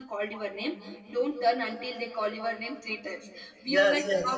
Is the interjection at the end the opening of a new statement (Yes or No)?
No